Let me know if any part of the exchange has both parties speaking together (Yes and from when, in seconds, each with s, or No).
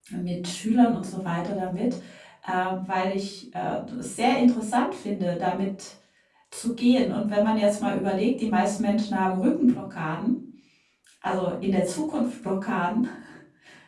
No